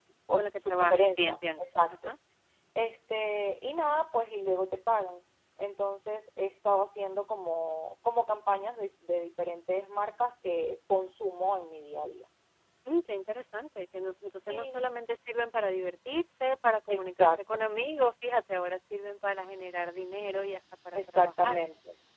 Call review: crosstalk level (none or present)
present